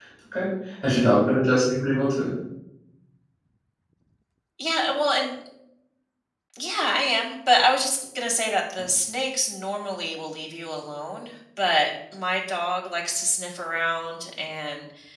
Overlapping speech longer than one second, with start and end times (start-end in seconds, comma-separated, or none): none